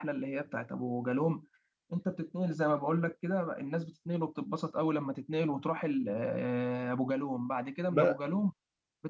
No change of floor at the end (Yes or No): Yes